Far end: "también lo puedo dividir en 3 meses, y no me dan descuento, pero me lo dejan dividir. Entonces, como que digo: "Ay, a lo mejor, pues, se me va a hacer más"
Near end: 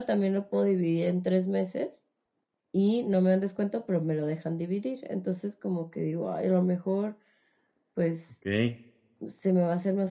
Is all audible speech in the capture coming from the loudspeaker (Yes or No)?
No